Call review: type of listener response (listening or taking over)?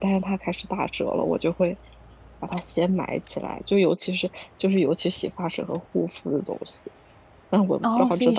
taking over